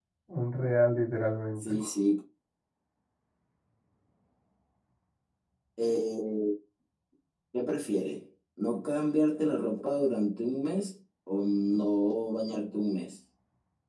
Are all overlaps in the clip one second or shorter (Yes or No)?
Yes